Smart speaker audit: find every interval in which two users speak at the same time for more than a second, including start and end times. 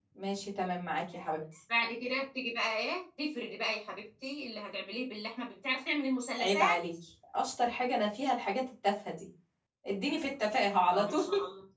none

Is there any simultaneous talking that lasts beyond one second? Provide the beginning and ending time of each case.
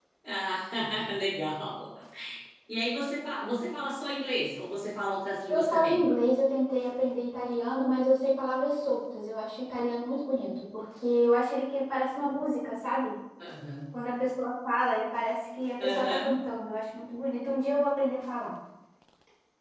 none

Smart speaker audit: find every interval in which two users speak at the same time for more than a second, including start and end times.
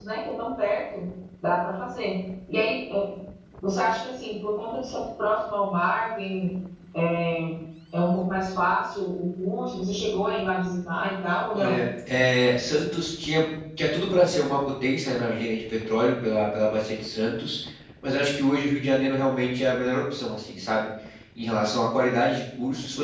none

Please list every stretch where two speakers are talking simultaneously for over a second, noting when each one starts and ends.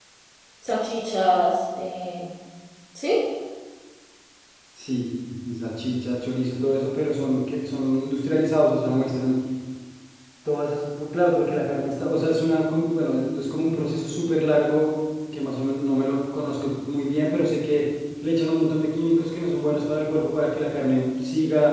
none

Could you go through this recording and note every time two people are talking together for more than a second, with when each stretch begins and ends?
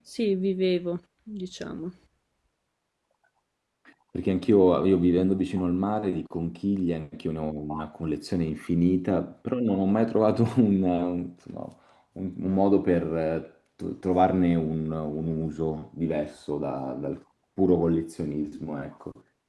none

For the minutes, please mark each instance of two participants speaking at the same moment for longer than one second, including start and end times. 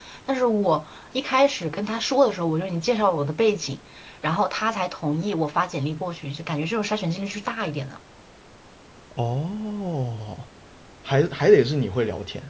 none

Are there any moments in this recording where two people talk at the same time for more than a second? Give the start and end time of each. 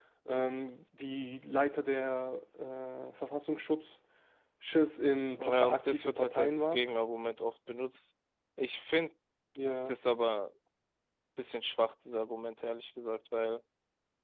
5.4-6.8

